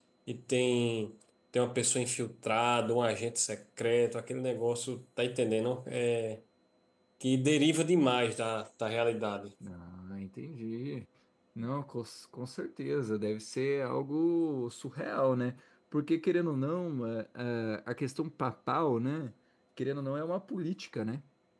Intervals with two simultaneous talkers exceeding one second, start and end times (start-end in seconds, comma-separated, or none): none